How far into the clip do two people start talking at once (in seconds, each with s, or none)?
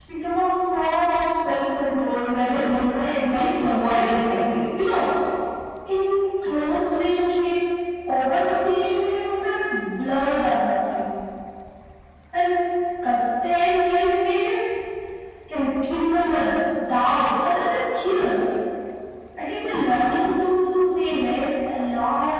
2.4 s